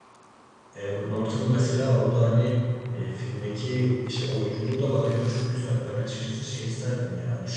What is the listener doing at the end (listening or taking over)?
listening